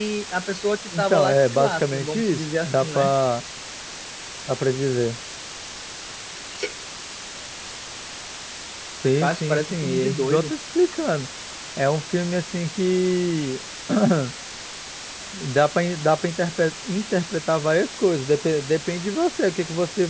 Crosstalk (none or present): present